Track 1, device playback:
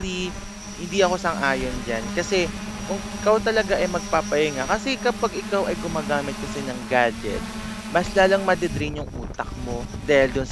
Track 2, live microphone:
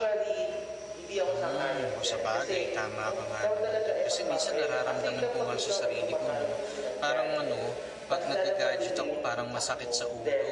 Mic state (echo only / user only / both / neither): both